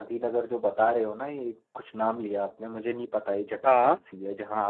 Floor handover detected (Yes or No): No